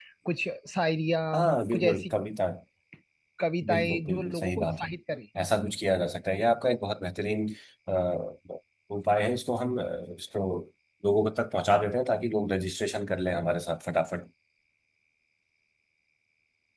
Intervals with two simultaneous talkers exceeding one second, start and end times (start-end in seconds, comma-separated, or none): 3.7-4.9